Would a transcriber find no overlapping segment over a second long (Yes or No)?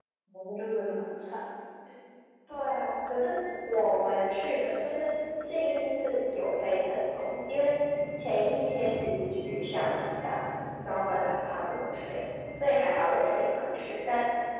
Yes